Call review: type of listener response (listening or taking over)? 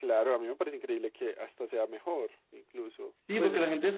taking over